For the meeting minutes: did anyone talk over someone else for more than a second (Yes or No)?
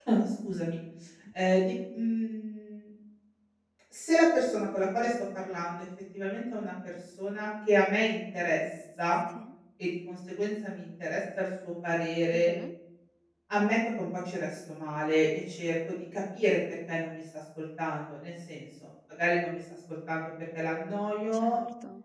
No